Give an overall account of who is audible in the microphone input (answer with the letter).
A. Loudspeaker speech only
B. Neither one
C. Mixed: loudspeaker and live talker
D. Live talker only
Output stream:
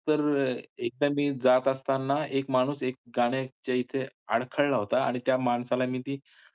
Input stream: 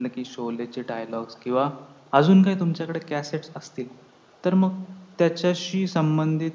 D